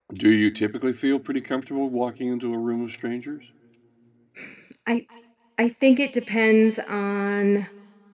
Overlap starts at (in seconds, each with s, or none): none